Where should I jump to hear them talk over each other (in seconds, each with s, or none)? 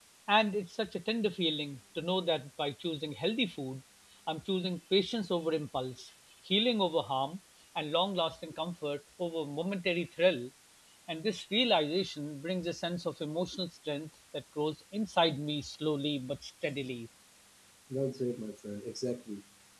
none